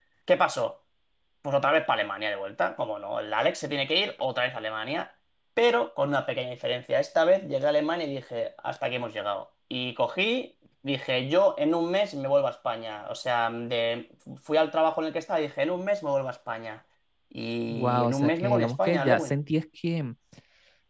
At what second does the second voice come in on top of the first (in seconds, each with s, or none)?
17.7 s